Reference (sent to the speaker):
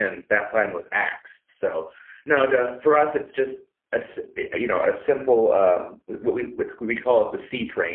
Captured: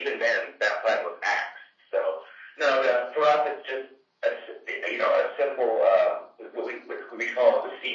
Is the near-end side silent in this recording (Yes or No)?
Yes